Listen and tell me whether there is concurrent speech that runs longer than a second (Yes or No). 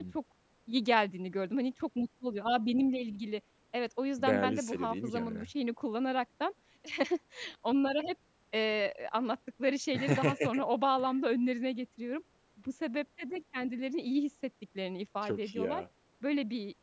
Yes